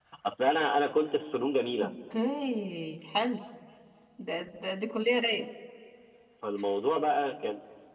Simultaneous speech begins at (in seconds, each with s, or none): none